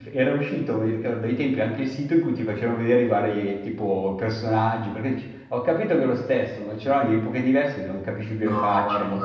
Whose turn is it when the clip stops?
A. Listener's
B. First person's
A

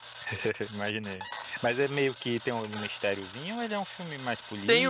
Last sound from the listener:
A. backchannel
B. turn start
B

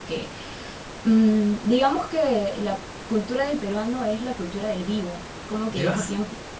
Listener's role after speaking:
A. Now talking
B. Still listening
B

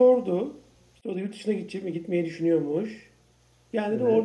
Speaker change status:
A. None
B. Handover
A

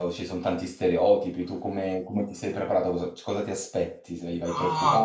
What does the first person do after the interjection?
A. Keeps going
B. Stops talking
B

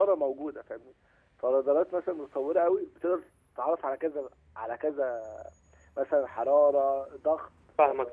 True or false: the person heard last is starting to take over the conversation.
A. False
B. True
B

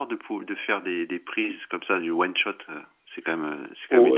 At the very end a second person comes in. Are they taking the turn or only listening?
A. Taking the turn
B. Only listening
A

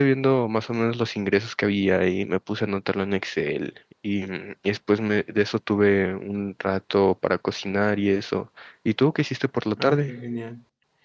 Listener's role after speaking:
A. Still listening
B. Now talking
B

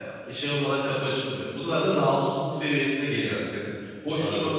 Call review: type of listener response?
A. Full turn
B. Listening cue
B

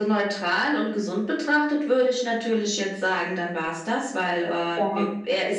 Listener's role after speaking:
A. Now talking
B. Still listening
B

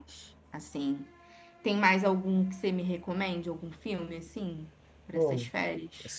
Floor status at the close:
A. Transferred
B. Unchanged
A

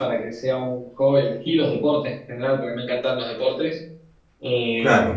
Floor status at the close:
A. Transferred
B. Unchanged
B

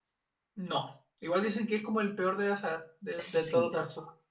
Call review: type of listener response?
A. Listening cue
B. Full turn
B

